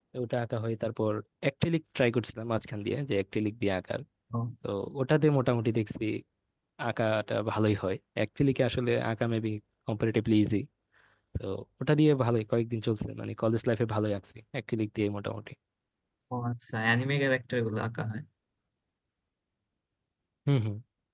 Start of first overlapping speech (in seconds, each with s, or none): none